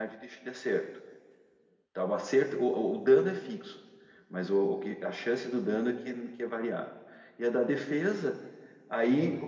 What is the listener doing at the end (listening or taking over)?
listening